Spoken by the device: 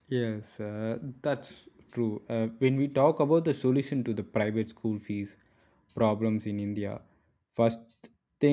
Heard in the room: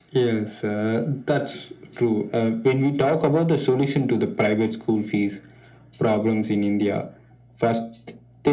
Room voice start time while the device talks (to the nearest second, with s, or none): none